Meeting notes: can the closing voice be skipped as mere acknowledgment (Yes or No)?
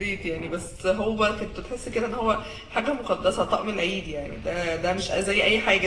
Yes